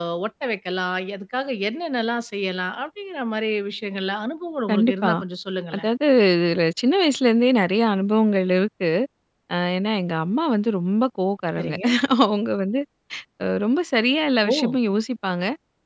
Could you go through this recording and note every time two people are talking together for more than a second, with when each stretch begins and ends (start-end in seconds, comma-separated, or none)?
none